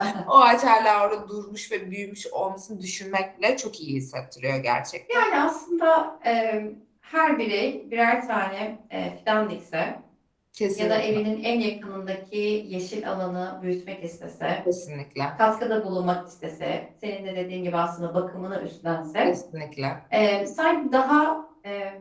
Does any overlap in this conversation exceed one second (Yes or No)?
No